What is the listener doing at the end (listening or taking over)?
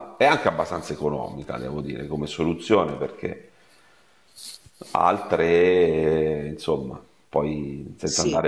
listening